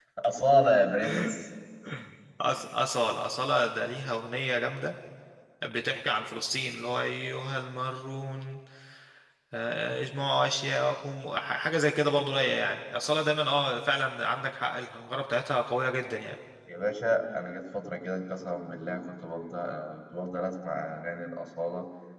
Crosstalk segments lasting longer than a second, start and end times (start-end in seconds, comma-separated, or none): none